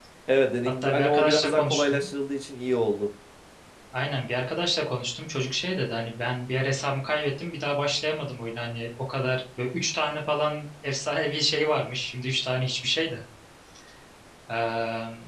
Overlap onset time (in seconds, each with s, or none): 0.8 s